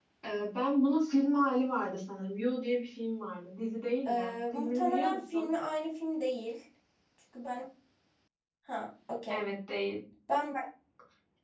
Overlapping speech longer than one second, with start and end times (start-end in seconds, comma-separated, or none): 4.1-5.5